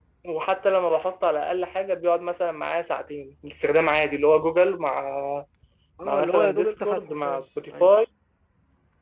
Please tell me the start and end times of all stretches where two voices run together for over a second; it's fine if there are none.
6.0-7.9

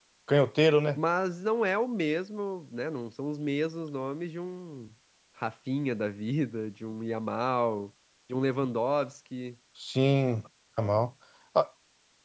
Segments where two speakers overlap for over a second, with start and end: none

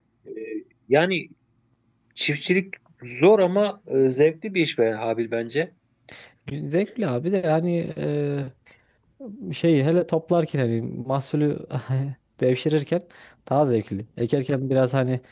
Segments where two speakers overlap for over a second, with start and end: none

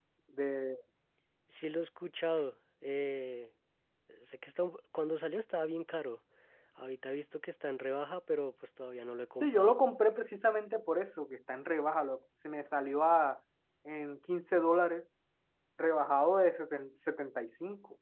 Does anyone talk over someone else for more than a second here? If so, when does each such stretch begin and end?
none

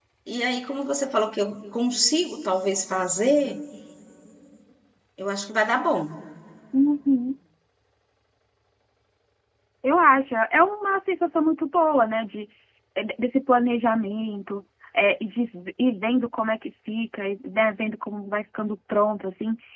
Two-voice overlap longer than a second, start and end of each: none

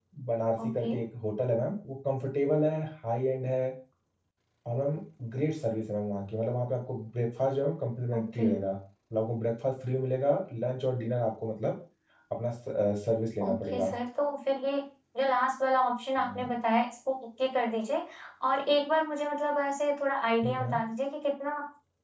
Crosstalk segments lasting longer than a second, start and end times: none

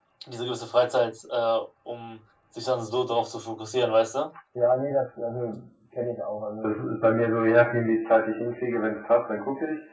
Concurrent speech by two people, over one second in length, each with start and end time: none

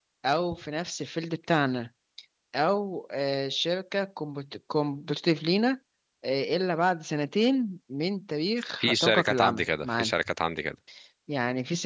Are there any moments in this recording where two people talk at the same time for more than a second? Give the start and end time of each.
8.8-10.2

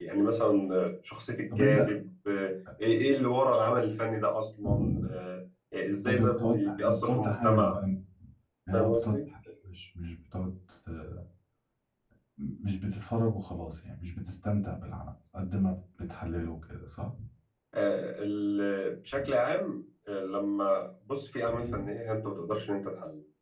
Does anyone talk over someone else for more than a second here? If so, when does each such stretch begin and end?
6.1-7.8

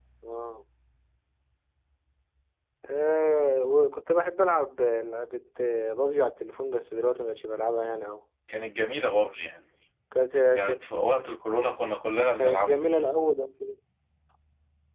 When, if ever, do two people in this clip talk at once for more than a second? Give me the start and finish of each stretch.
none

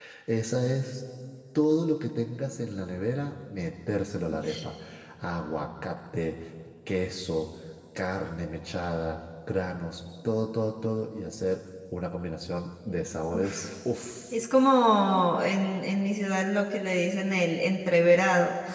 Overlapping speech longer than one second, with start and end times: none

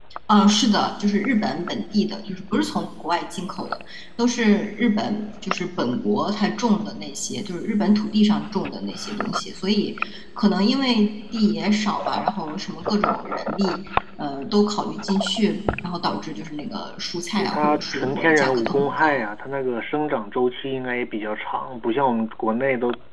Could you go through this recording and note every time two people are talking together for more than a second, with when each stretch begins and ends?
17.4-19.2

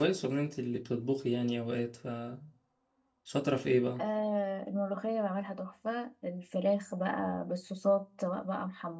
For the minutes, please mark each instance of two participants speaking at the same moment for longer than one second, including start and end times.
none

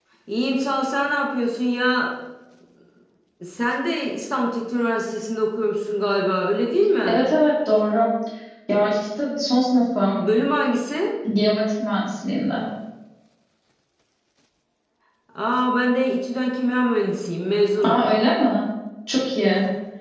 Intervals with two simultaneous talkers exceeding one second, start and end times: none

